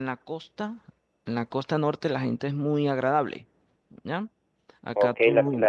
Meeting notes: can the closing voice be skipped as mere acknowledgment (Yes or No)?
No